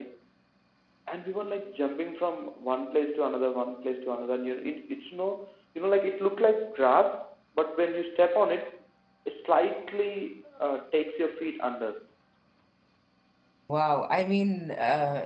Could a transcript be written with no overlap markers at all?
Yes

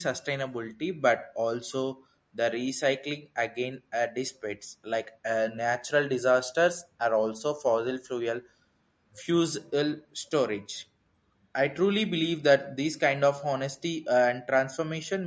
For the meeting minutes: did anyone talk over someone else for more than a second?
No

